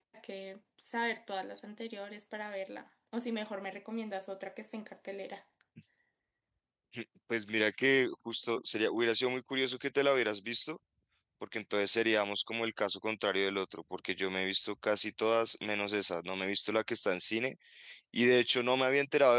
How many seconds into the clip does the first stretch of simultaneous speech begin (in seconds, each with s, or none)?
none